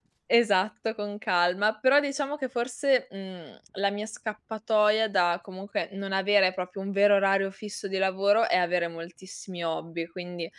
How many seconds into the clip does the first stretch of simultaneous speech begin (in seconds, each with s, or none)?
none